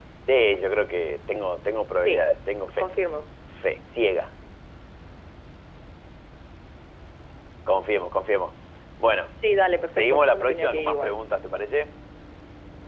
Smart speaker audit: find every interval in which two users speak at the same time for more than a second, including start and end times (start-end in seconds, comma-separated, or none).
9.9-11.2